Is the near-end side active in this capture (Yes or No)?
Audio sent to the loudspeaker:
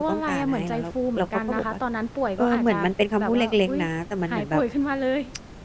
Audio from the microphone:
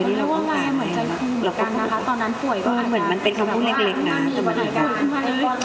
Yes